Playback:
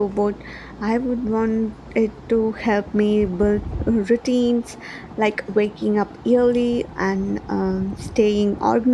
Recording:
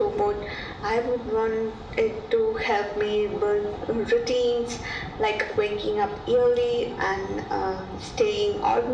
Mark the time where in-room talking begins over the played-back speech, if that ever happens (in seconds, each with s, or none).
none